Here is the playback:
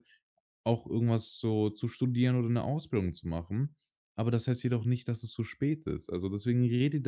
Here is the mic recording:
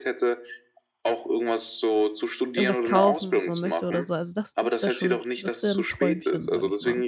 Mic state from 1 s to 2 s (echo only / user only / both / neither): echo only